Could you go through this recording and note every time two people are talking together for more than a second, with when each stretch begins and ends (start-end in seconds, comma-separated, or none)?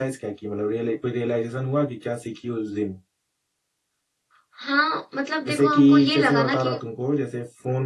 5.5-6.8